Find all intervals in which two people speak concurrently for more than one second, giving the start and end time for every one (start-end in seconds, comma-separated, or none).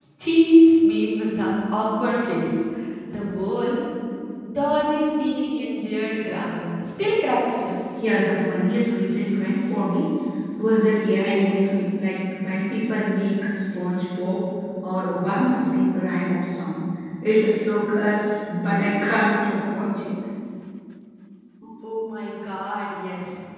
none